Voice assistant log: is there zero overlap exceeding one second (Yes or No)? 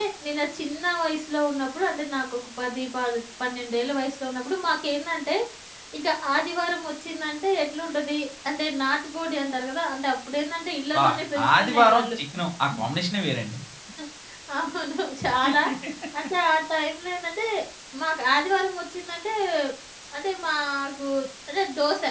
No